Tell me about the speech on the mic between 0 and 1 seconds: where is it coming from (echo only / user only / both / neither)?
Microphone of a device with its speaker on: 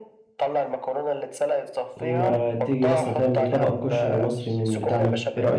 echo only